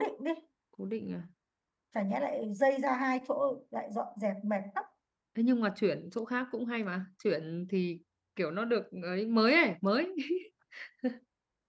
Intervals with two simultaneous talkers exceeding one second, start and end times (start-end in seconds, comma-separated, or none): none